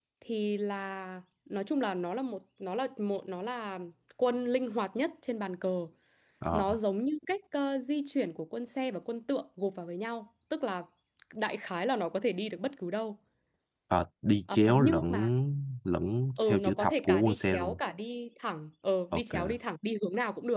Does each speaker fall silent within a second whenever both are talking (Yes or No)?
No